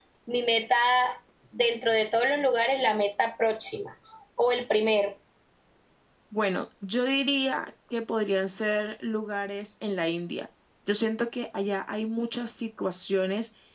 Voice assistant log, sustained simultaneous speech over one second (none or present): none